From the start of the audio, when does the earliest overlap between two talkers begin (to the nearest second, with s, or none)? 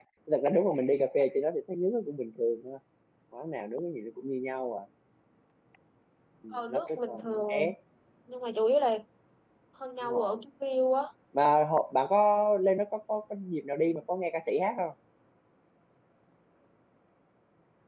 7 s